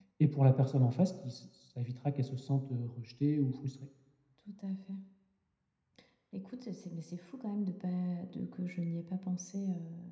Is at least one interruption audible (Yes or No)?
No